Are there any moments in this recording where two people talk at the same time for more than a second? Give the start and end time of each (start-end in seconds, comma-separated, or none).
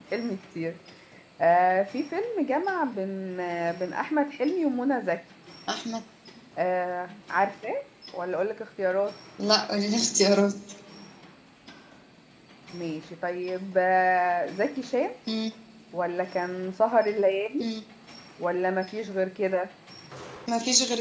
none